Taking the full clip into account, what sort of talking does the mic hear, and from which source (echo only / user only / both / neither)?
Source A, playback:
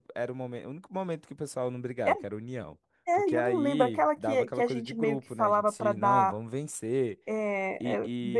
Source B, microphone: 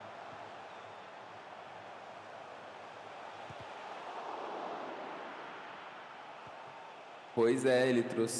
user only